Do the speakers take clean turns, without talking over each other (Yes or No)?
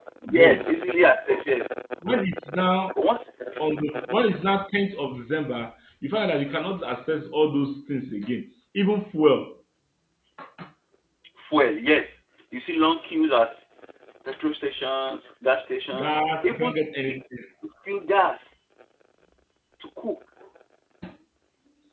No